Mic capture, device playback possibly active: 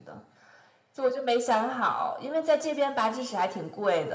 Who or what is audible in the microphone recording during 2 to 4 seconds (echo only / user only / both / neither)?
echo only